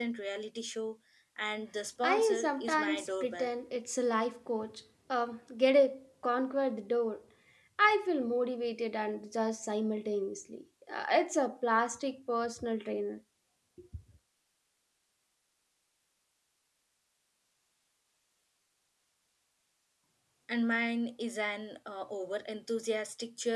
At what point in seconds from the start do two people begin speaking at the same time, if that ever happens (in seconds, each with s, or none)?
2.0 s